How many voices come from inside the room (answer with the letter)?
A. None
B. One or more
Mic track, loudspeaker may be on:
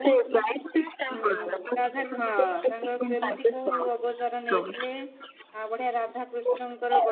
B